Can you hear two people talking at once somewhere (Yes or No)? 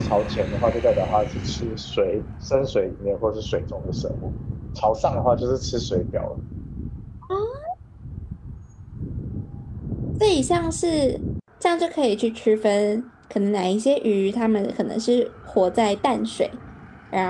No